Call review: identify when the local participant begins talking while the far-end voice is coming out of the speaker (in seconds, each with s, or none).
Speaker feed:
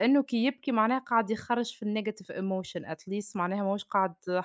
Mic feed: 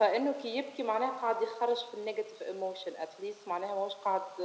none